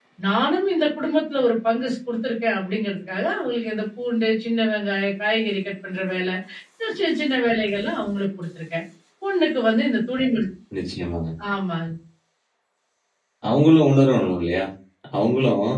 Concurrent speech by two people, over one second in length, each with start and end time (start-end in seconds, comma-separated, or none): none